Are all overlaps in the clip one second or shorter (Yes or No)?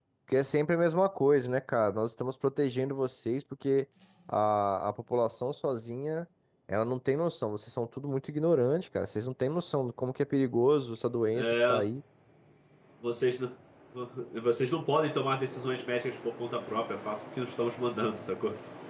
Yes